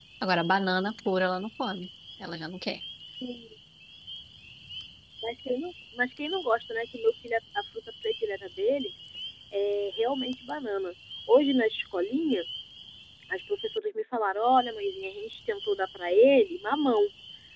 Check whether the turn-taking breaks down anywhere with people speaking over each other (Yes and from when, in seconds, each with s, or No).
No